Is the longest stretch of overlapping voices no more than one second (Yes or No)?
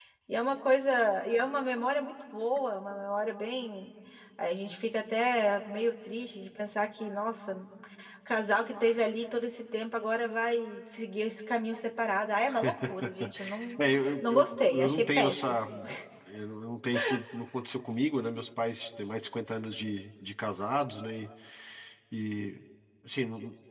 No